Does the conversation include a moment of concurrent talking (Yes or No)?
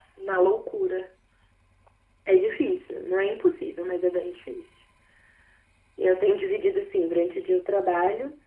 No